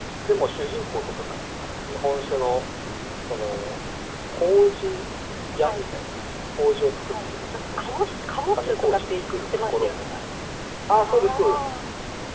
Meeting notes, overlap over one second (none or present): present